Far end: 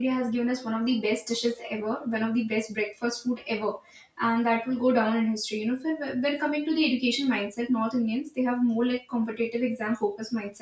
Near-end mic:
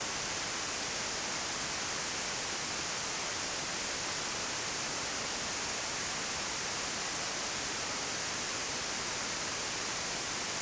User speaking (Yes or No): No